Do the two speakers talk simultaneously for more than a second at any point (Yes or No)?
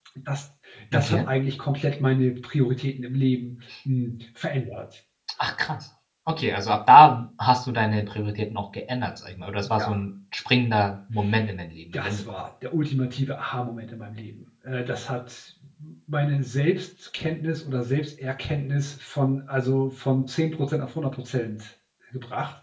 No